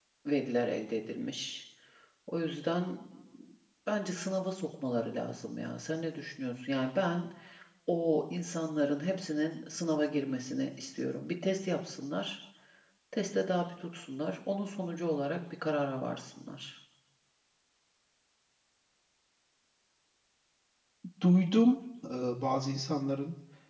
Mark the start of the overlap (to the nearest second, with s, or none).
none